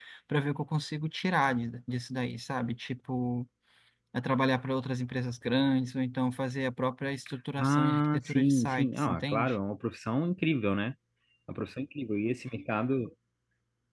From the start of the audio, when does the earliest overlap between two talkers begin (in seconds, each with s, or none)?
7.6 s